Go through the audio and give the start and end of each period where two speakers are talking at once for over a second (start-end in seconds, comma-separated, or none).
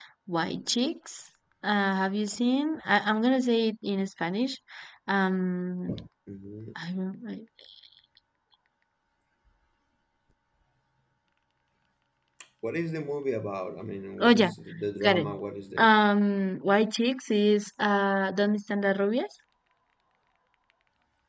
none